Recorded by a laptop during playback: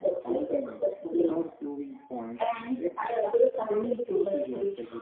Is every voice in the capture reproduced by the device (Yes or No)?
No